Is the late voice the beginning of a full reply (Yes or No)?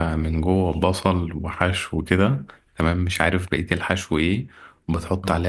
No